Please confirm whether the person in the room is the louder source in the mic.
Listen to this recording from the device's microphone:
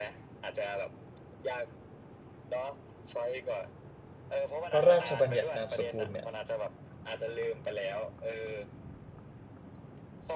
Yes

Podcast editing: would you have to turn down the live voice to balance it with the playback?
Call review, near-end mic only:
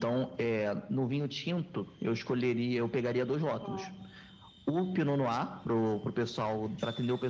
No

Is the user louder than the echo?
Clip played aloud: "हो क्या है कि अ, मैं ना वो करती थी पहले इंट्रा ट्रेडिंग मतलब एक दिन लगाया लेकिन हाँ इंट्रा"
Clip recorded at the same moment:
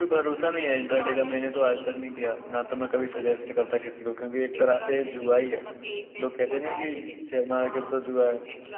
Yes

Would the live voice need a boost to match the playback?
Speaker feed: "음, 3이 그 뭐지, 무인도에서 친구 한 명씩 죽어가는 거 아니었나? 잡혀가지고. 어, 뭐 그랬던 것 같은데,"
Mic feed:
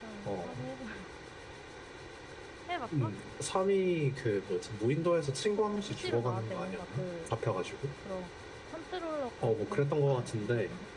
Yes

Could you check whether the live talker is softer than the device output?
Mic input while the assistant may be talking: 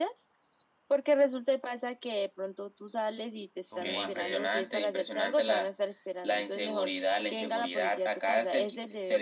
Yes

